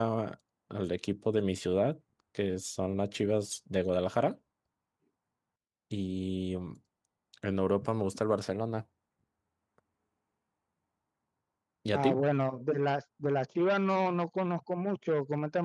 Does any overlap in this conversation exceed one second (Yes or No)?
No